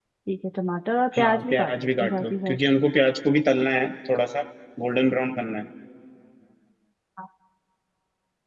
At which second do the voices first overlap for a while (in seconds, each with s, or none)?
1.2 s